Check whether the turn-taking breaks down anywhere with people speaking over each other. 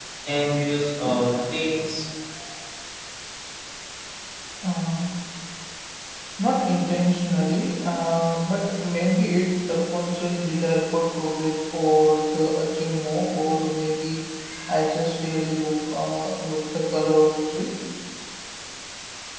No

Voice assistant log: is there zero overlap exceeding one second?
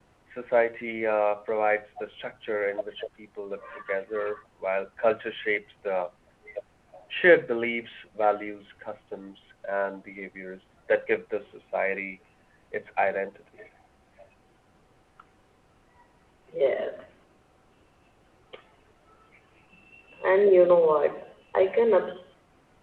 Yes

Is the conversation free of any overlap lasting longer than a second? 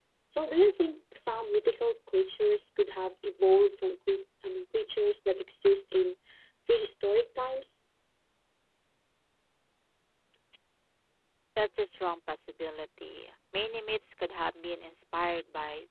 Yes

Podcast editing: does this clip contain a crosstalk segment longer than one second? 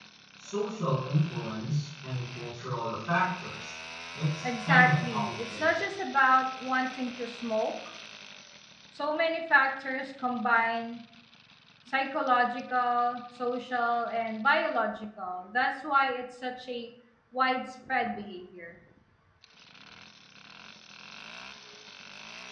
Yes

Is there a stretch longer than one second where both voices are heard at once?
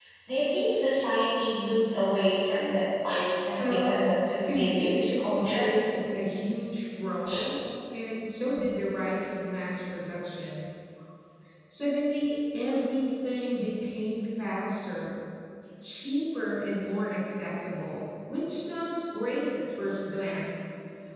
Yes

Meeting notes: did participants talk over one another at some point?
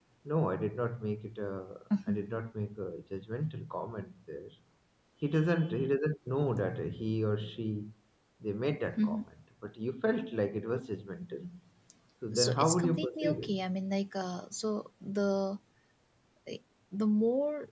Yes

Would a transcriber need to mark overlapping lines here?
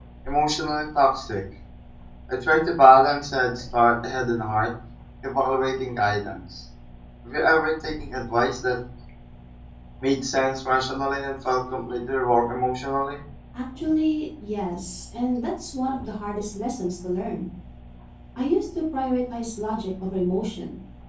No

